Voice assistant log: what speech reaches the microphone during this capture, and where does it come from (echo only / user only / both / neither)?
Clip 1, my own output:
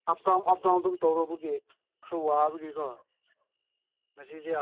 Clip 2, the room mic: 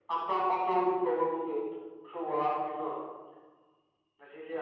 echo only